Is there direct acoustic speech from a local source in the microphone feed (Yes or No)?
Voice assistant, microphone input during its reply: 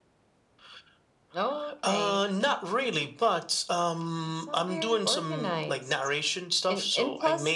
No